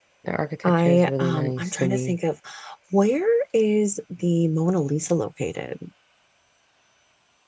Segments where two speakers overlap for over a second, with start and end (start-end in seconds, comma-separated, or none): 0.6-2.2